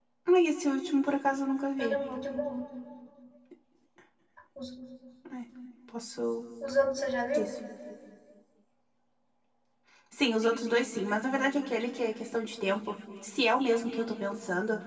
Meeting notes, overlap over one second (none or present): none